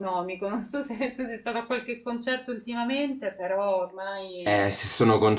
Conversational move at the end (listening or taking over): taking over